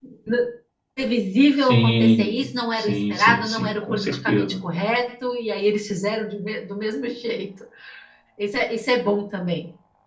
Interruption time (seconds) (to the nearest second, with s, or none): 2 s